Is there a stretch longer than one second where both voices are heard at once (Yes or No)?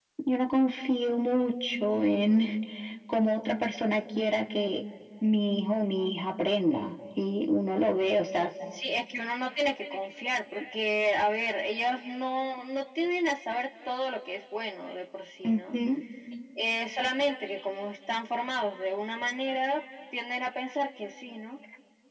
No